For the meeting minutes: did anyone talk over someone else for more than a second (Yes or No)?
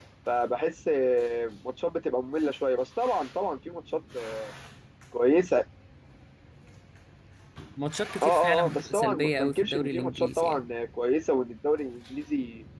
Yes